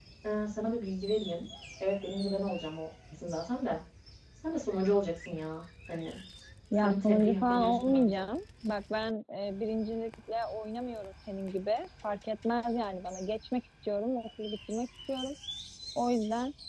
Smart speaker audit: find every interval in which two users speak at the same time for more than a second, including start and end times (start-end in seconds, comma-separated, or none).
6.8-8.2